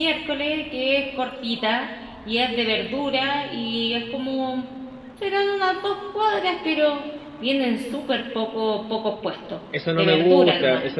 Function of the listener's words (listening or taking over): taking over